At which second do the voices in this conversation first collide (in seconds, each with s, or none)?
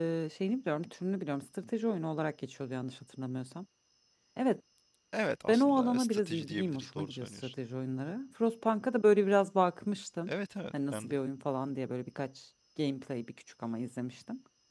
5.5 s